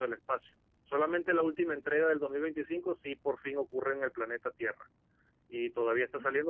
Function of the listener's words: listening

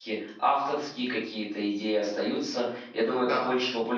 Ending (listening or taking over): listening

